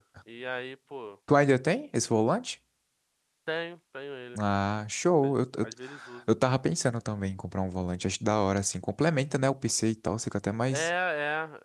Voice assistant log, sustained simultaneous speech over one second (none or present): none